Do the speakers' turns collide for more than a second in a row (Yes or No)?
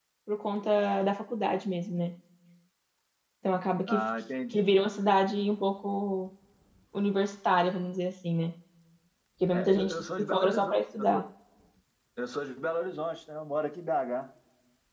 Yes